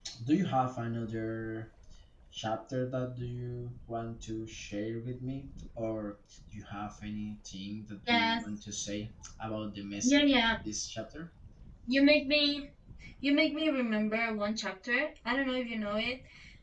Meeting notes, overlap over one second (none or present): none